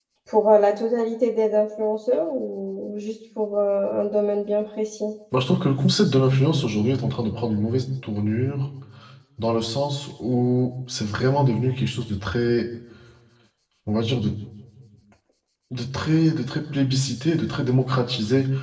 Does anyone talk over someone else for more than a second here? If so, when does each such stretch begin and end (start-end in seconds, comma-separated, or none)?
none